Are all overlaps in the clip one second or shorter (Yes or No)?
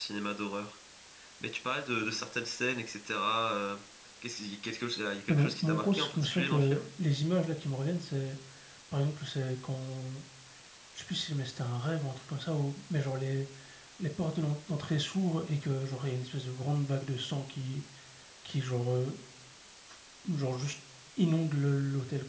No